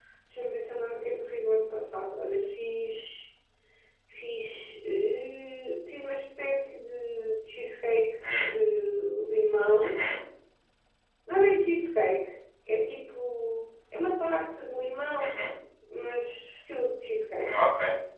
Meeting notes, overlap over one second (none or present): none